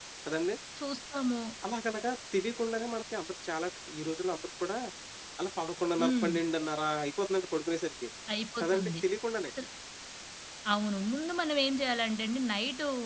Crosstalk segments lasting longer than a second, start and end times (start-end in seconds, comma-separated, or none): none